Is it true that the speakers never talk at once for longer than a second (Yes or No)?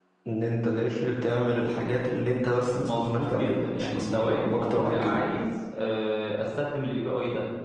No